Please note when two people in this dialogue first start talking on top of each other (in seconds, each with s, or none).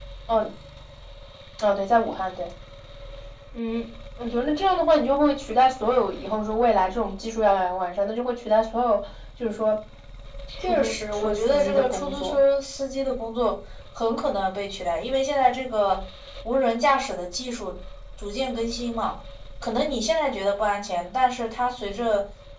10.6 s